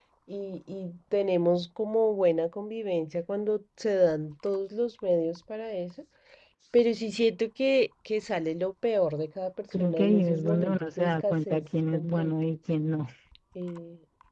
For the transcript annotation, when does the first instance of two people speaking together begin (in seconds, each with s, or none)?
9.7 s